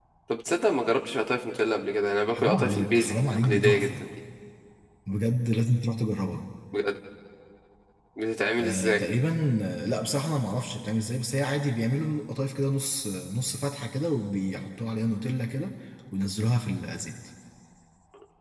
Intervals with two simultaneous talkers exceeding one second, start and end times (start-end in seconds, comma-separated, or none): 2.3-4.0